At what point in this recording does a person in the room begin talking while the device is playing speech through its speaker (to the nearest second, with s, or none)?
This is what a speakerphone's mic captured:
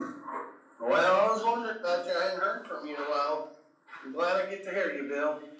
none